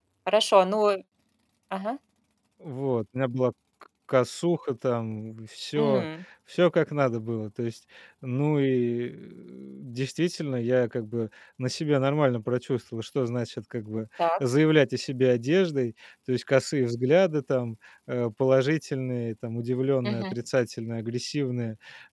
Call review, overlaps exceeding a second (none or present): none